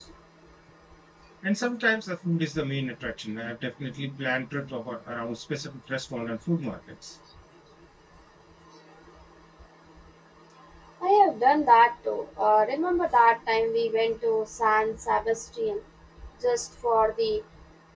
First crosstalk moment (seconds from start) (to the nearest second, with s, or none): none